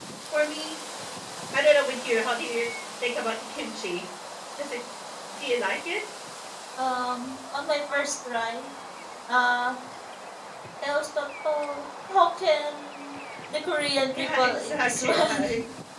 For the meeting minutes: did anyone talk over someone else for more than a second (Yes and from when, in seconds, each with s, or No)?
Yes, from 14.1 s